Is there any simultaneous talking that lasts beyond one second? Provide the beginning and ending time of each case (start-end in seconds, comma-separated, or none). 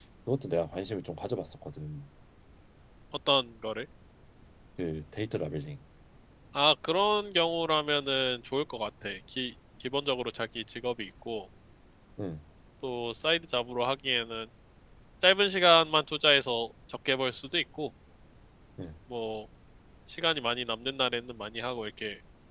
none